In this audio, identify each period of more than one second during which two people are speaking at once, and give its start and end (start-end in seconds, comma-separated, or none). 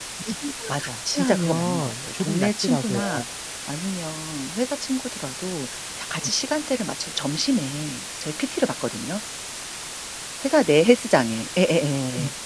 0.7-3.0